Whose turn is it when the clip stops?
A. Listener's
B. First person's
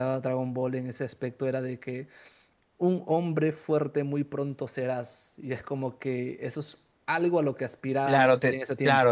A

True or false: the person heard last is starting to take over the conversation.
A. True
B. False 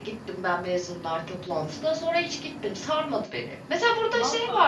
B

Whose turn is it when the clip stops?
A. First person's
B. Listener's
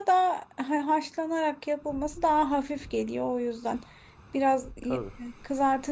A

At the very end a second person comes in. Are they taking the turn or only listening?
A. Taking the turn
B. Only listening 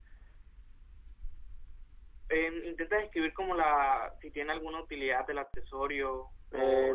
A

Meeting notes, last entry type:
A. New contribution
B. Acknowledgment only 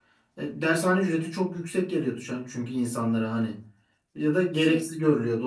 B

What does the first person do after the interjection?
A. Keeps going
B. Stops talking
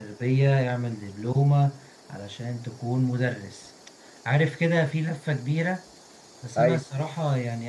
A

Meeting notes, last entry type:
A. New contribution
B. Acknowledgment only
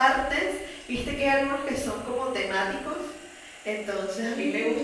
B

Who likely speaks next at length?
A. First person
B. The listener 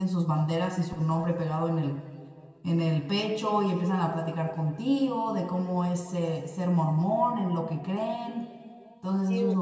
B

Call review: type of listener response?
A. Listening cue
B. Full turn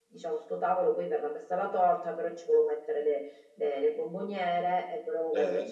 A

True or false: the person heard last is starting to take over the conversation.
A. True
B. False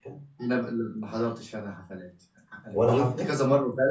B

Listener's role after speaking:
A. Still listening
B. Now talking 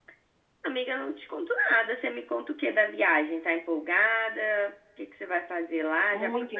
B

